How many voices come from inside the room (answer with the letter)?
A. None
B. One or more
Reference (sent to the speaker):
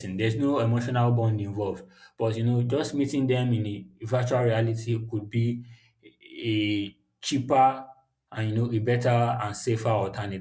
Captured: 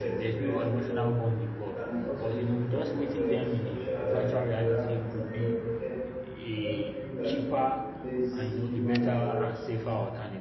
B